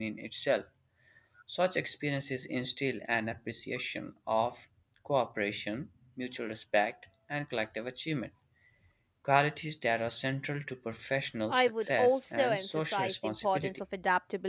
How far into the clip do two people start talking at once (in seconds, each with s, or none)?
11.5 s